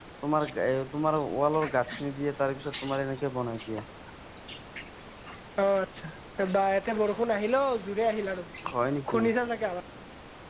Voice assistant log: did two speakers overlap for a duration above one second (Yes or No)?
No